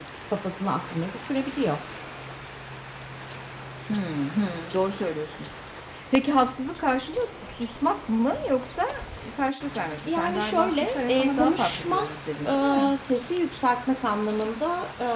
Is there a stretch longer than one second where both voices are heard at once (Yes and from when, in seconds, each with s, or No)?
Yes, from 10.1 s